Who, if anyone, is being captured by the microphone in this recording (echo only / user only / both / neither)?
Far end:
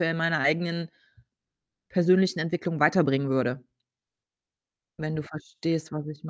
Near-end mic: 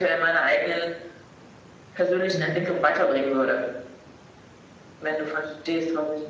both